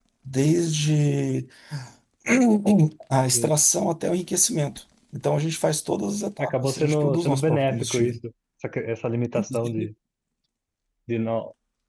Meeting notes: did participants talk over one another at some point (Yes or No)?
Yes